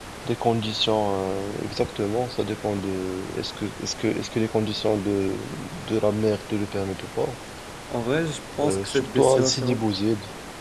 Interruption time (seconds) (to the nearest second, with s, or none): 9 s